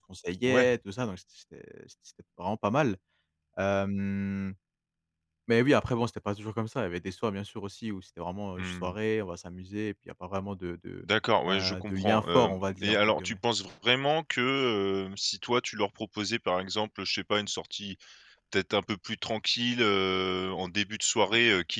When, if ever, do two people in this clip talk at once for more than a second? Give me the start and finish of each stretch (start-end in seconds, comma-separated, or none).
11.5-13.4